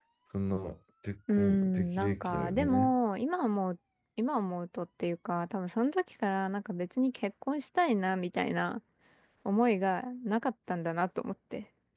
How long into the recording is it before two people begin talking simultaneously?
1.3 s

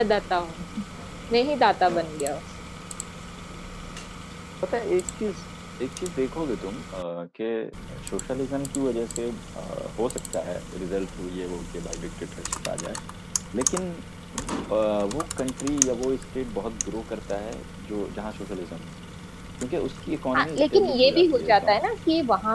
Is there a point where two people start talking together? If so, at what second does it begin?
20.4 s

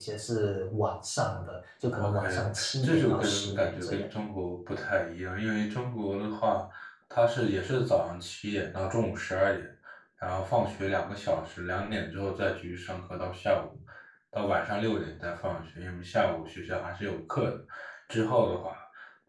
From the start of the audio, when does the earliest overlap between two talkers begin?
1.9 s

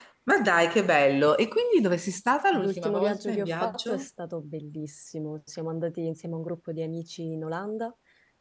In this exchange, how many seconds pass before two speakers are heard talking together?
2.5 s

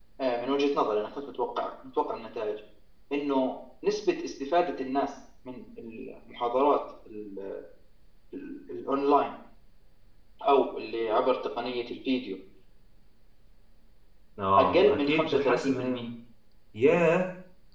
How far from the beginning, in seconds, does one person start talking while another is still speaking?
14.6 s

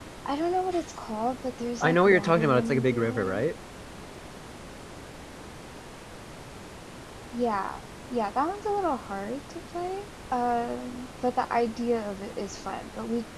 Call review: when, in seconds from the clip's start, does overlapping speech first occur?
1.8 s

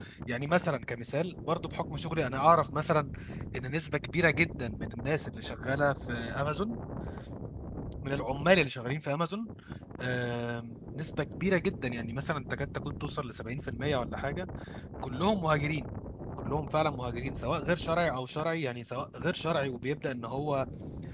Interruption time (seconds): none

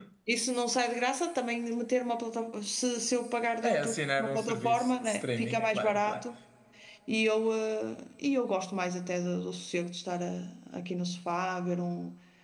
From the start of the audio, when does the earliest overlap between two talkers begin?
3.6 s

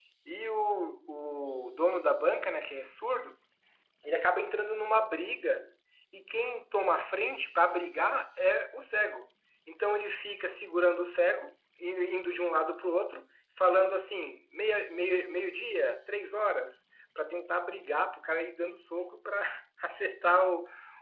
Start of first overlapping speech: none

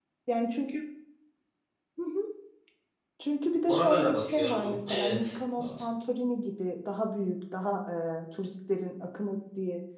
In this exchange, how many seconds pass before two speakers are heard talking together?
3.7 s

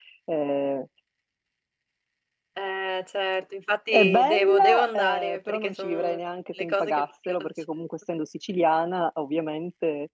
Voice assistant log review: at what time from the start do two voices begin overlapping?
3.9 s

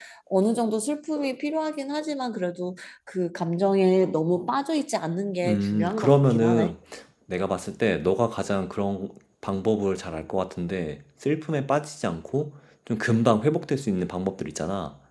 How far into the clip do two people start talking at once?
5.4 s

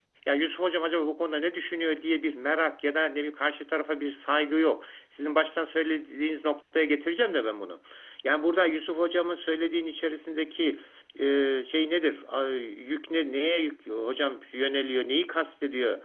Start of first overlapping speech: none

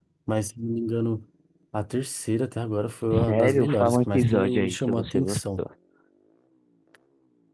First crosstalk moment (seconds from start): 3.1 s

